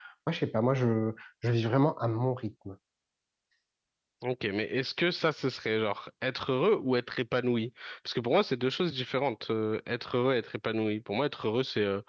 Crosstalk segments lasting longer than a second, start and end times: none

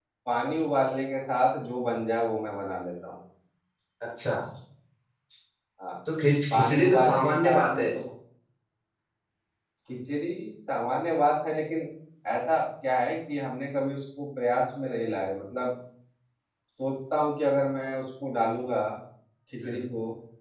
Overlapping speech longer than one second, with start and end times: 6.5-7.9

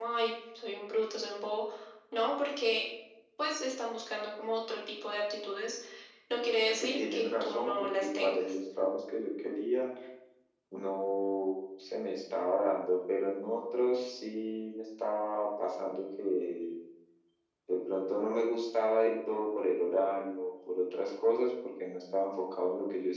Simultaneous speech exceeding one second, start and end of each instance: 6.6-8.5

